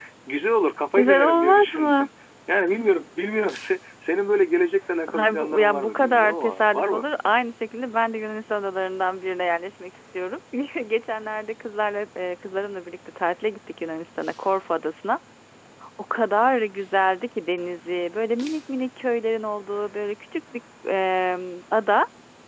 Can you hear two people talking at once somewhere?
Yes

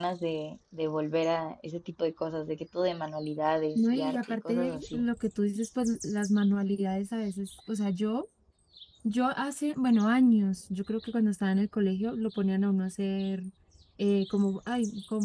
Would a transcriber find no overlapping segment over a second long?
No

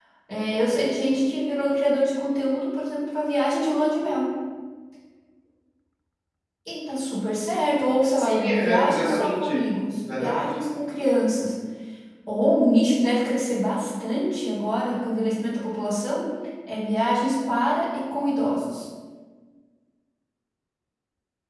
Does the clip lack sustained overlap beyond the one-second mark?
No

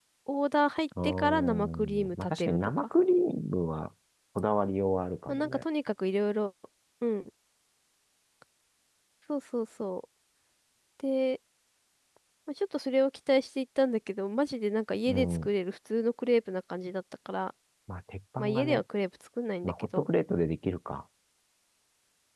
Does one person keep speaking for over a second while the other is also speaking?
Yes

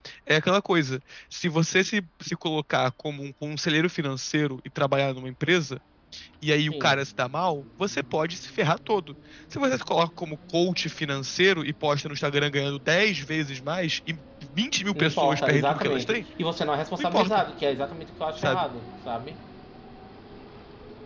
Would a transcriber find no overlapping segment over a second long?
No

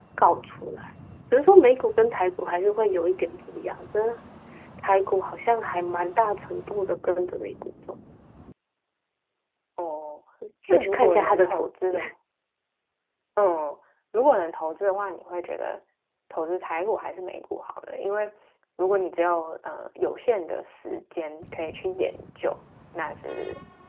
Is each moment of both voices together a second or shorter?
No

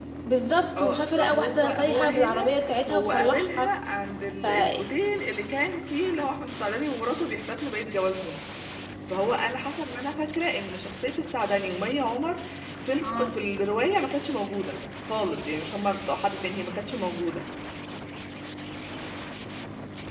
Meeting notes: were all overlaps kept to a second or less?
No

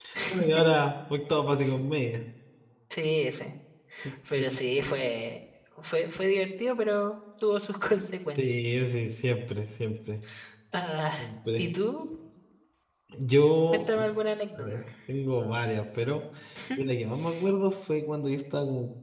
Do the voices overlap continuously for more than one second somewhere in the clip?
No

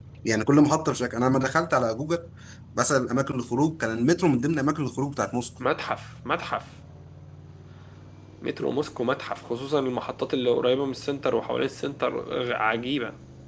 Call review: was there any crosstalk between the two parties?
No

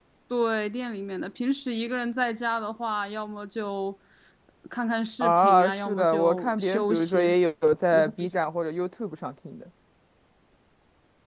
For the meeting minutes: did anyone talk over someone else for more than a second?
Yes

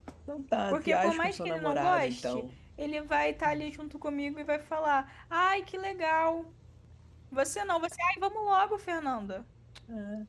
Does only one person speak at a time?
No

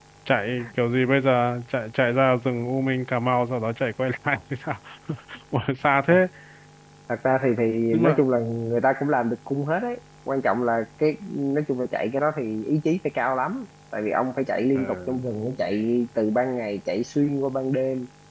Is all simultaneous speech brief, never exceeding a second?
Yes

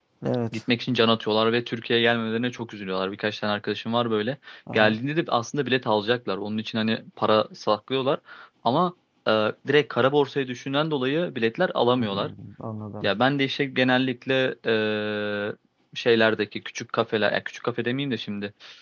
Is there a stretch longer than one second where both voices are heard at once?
No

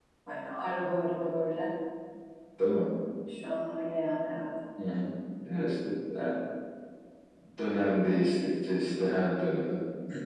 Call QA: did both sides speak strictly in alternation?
Yes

